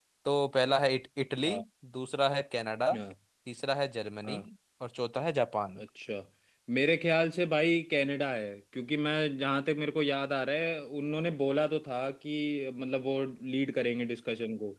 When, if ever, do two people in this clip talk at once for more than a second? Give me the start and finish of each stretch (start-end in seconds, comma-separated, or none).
none